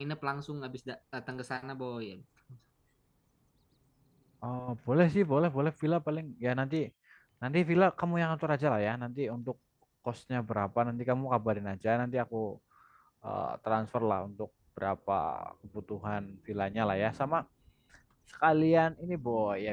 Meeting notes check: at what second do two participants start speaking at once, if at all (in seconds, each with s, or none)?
none